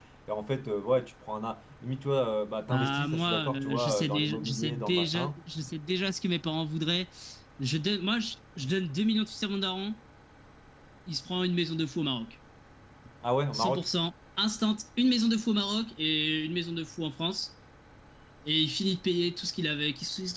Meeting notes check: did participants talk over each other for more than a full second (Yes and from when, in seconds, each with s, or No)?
Yes, from 2.7 s